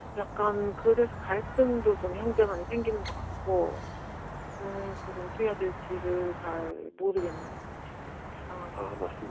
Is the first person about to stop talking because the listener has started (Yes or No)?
Yes